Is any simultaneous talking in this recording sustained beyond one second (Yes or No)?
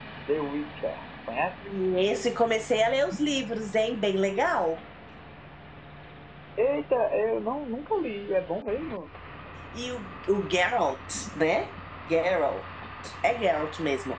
No